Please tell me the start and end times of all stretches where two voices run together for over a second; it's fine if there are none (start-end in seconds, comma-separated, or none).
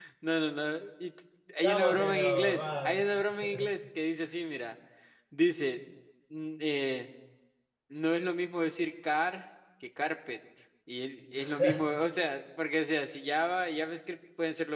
1.6-3.1